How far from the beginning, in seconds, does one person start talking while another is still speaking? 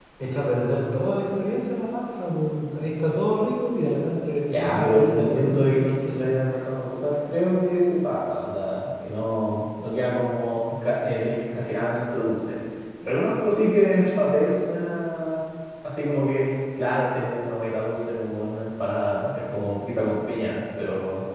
4.5 s

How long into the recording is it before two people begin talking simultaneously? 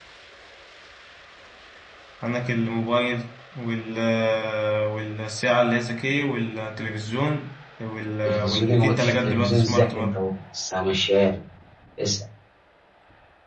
8.2 s

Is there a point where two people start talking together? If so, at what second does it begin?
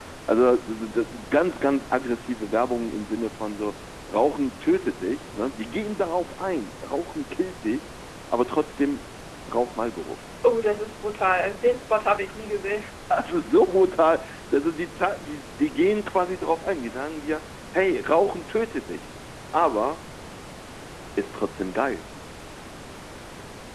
none

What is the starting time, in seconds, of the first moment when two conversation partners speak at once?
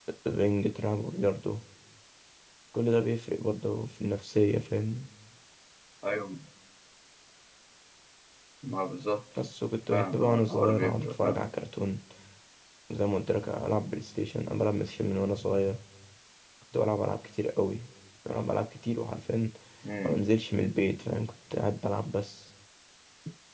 9.9 s

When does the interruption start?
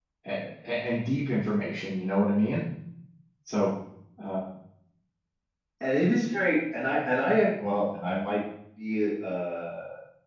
none

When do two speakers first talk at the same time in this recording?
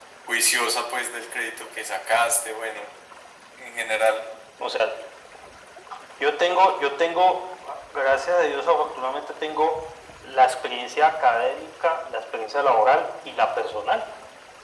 none

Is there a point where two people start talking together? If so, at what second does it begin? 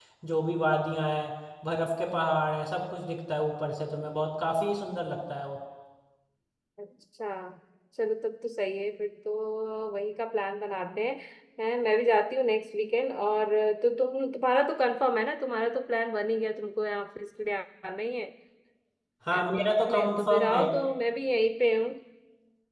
19.4 s

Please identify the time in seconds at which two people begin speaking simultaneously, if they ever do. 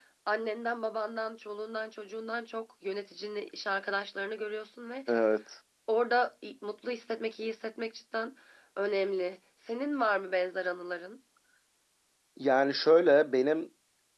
none

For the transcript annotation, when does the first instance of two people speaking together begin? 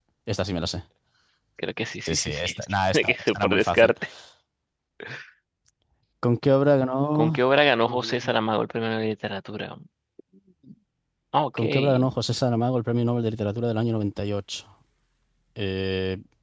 2.0 s

